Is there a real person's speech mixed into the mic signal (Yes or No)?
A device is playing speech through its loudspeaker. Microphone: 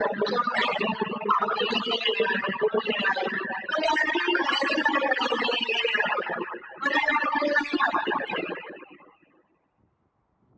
No